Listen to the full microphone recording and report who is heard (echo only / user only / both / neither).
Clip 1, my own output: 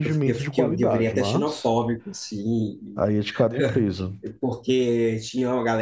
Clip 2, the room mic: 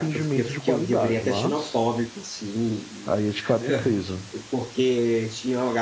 echo only